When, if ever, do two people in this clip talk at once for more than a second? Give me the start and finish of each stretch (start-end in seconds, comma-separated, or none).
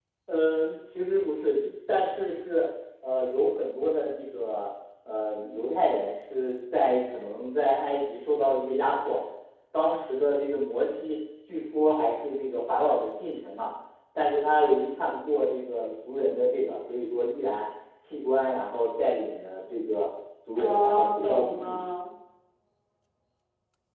20.6-21.8